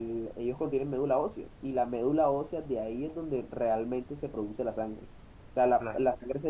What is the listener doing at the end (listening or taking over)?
listening